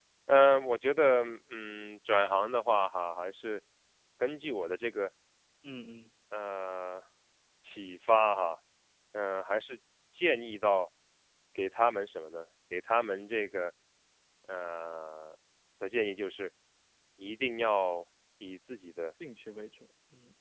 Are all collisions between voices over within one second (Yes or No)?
Yes